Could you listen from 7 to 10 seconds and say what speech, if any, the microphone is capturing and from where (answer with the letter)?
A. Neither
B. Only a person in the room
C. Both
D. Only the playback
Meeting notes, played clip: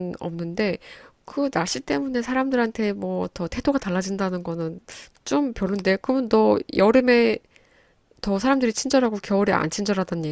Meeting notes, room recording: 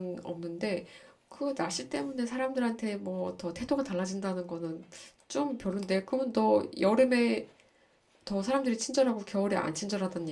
D